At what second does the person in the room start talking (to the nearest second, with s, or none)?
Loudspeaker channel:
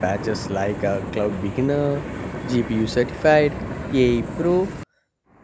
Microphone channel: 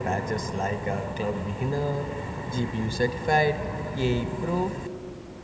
none